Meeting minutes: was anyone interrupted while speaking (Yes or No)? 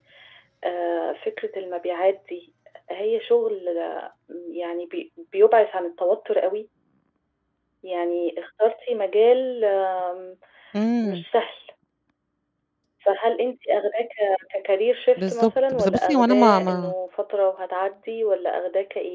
Yes